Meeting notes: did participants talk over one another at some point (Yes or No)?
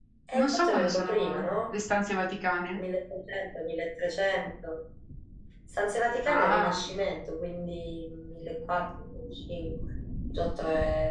Yes